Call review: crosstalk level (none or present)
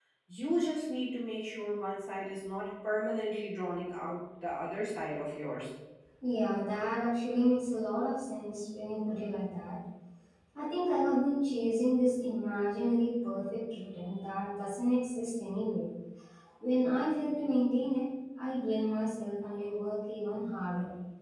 none